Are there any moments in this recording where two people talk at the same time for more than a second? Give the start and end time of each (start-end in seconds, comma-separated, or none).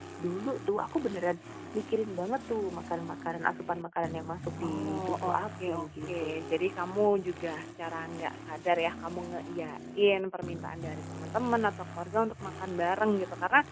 4.6-6.6